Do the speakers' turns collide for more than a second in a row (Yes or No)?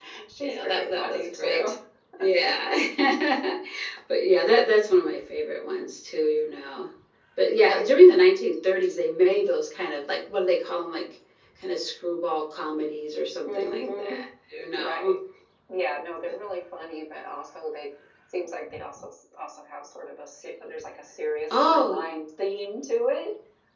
Yes